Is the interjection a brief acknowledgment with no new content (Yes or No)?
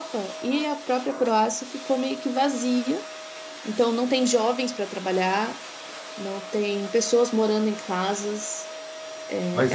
No